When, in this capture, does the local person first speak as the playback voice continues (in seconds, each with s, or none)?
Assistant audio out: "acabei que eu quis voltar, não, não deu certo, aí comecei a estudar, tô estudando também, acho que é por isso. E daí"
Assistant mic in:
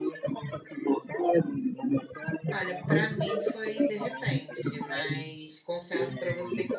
2.5 s